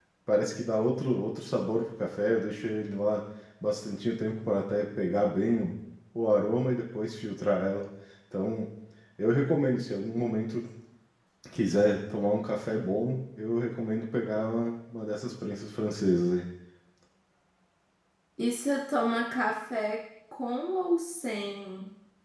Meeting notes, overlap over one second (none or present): none